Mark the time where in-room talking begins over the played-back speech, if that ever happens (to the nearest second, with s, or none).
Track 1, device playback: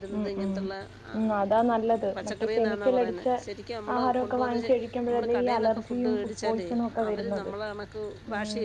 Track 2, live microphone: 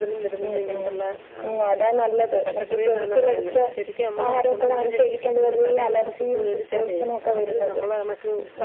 none